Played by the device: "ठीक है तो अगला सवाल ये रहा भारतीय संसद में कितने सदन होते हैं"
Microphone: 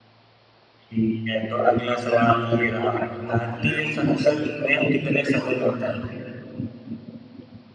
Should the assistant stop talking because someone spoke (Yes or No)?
No